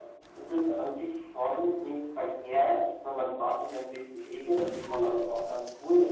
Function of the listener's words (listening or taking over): listening